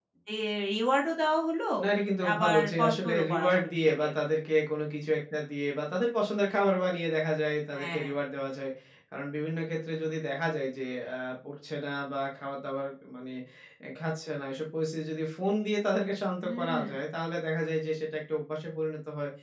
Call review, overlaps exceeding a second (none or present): present